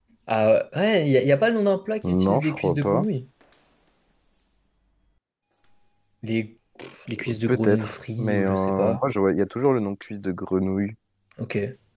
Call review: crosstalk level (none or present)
present